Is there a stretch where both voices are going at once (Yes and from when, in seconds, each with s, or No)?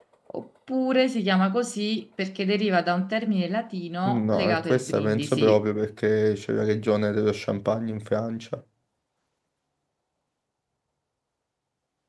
Yes, from 4.0 s